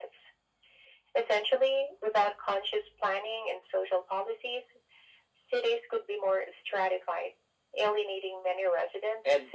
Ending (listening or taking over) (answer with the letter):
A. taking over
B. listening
A